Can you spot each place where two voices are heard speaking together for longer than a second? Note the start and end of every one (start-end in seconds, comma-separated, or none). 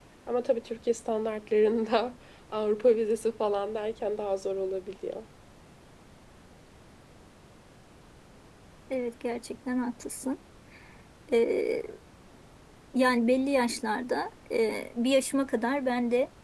none